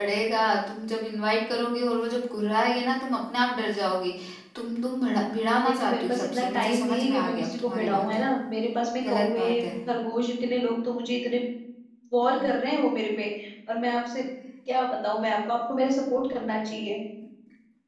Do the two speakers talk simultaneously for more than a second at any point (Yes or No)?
Yes